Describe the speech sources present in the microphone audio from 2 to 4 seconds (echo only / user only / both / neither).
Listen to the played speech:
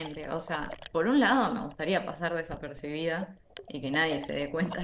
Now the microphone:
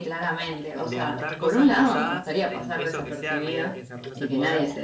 both